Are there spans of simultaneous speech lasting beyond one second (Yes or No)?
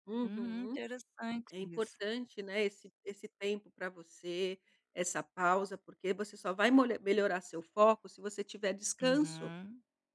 No